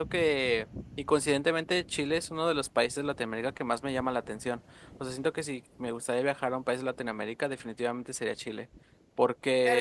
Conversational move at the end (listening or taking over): taking over